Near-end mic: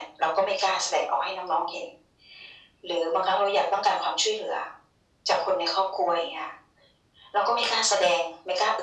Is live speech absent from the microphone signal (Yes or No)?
Yes